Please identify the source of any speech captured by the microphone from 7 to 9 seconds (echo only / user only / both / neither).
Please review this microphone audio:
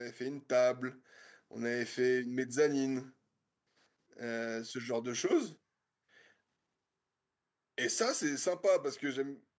user only